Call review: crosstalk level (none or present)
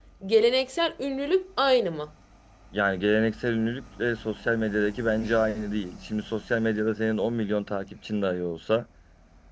none